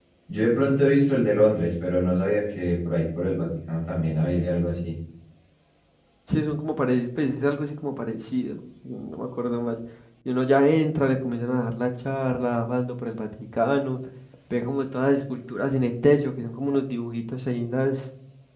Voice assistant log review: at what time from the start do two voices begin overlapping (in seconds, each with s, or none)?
none